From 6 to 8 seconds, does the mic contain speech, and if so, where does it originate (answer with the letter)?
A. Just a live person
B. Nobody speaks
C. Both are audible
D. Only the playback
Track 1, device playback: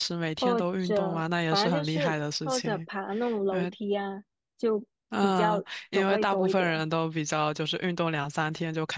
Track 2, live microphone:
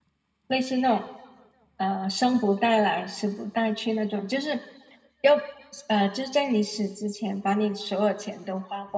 A